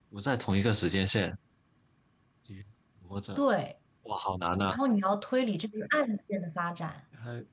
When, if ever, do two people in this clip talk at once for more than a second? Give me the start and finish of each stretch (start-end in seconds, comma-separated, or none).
none